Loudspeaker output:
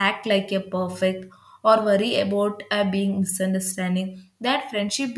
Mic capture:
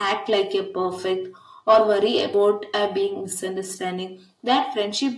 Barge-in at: none

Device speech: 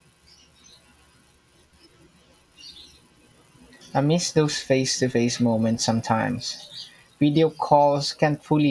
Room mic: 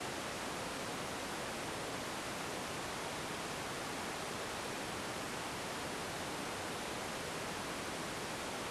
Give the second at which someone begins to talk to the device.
none

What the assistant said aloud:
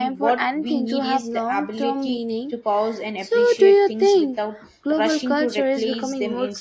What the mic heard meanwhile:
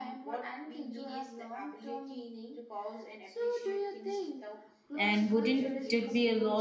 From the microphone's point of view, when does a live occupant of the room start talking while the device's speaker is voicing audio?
4.9 s

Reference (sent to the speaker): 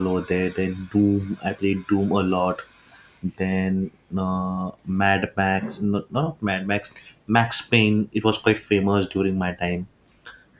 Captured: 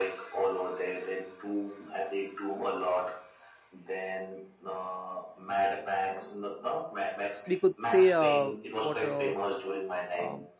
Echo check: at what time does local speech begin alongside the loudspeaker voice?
7.4 s

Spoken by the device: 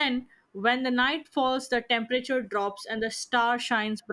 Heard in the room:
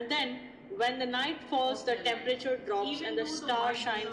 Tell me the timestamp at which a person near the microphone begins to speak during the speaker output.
1.7 s

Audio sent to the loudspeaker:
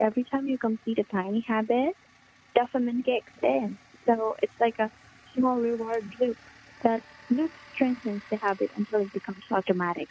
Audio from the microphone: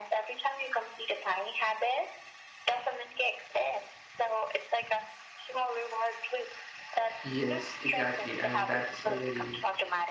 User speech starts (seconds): 7.2 s

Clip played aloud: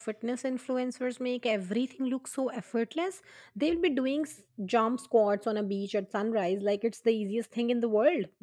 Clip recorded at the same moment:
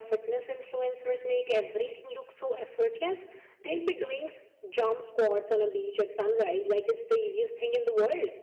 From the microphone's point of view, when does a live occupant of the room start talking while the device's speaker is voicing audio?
none

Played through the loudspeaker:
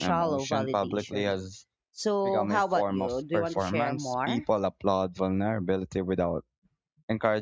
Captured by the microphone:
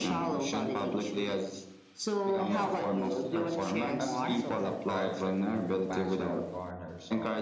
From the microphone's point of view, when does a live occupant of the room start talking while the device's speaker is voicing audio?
2.4 s

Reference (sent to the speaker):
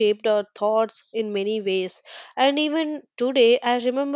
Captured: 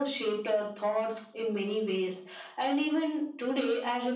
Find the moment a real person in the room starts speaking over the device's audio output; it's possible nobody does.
none

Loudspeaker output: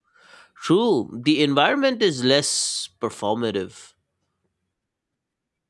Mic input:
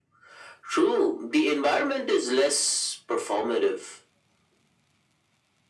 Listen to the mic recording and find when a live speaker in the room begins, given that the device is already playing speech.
none

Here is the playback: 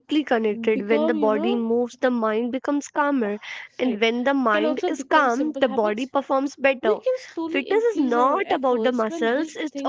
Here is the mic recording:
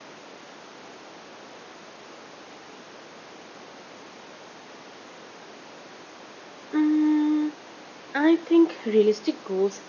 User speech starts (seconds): 6.7 s

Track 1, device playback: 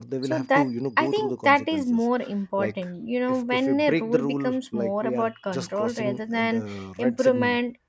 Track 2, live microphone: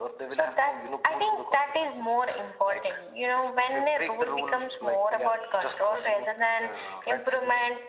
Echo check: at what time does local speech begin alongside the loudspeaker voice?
none

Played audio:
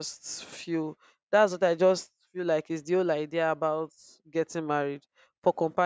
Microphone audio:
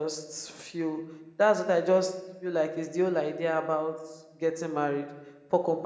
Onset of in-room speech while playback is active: none

